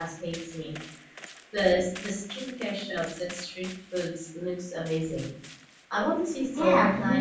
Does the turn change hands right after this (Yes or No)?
Yes